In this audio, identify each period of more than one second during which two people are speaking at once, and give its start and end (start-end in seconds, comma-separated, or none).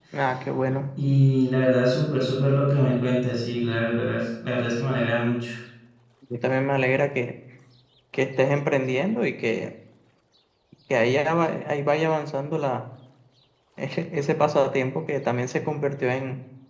none